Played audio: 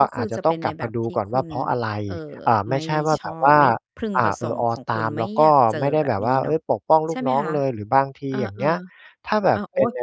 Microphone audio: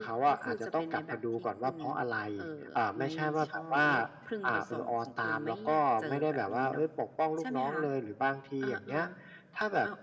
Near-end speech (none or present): none